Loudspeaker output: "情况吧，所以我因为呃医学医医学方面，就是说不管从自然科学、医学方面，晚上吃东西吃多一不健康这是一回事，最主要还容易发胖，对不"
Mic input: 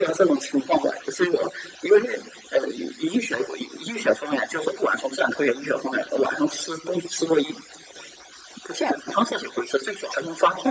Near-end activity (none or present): none